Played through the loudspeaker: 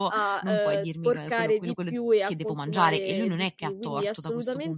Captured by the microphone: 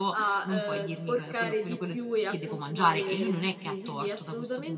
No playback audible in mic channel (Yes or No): No